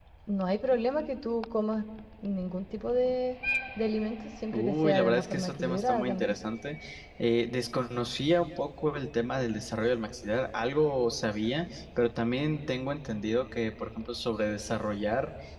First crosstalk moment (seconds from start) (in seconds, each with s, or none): 4.5 s